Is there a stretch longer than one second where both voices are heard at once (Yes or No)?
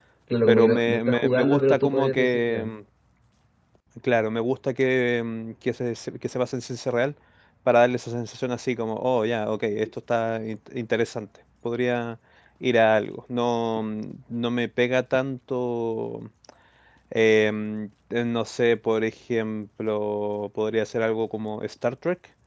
Yes